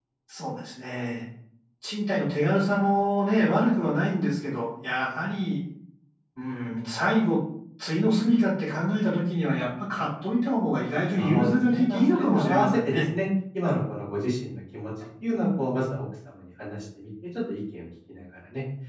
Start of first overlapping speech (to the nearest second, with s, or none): 11 s